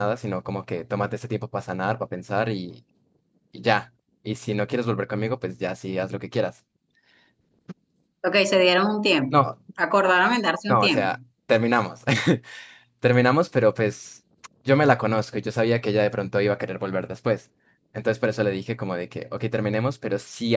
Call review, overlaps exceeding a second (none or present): none